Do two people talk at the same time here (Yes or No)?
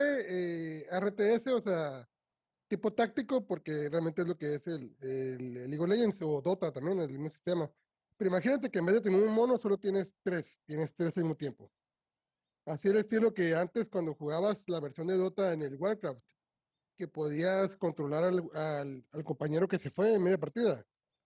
No